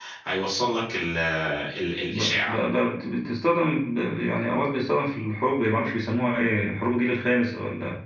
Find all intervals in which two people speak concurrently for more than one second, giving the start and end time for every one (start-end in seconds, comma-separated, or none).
none